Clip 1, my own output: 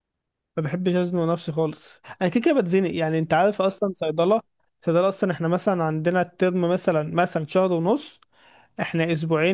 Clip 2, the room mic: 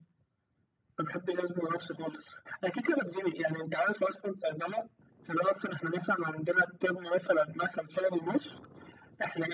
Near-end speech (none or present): none